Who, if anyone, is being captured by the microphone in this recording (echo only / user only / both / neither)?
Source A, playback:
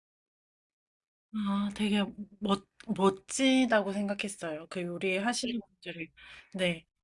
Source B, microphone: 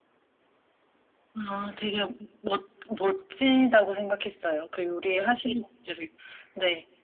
echo only